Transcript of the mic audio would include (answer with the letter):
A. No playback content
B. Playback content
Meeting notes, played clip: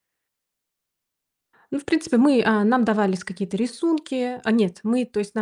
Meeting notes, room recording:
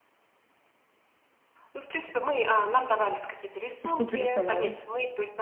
B